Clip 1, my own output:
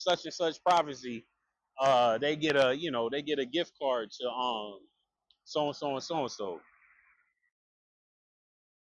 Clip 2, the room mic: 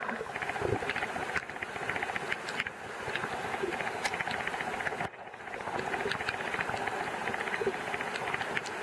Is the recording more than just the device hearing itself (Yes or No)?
No